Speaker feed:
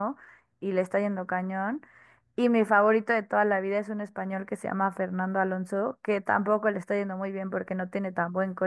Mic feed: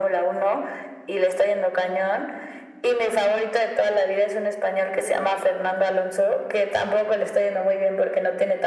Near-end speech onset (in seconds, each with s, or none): none